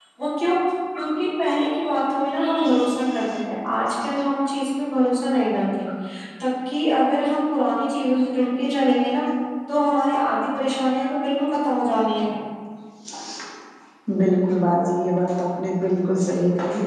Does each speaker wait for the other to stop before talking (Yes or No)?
Yes